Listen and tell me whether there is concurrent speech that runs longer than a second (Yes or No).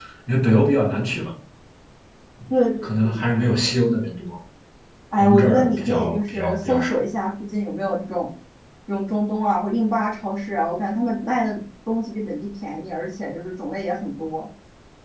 Yes